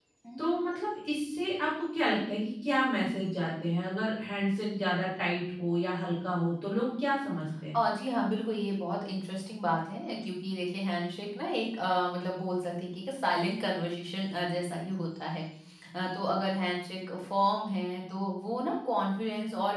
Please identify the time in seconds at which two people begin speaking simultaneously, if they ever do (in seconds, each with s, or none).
none